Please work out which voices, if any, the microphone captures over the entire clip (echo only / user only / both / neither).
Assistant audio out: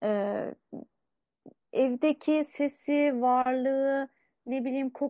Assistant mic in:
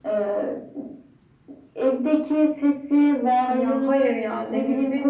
both